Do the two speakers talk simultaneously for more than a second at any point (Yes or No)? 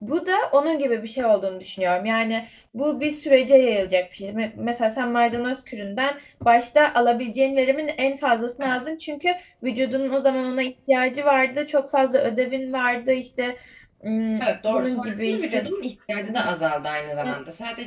Yes